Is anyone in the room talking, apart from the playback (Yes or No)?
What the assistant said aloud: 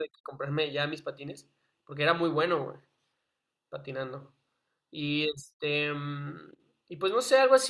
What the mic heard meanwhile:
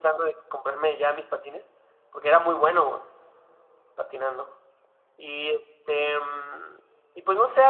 No